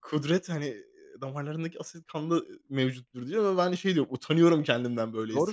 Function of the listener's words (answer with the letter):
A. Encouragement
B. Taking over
B